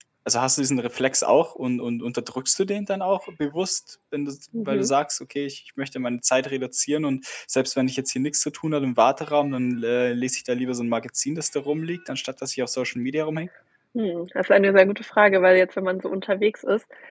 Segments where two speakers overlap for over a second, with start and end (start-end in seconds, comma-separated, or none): none